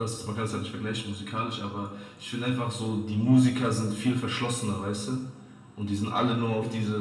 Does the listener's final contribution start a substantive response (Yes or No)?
No